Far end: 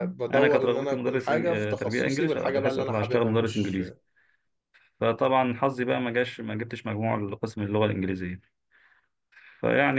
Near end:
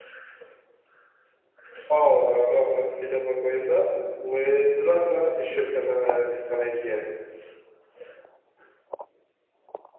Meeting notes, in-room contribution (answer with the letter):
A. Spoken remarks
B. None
A